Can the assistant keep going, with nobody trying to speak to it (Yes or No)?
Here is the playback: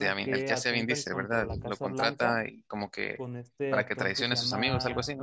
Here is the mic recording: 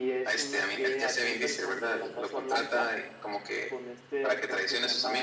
Yes